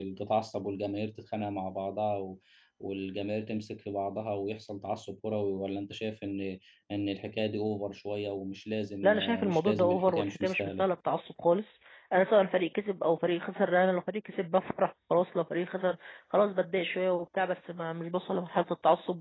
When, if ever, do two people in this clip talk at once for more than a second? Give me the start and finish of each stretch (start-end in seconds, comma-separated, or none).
9.0-10.9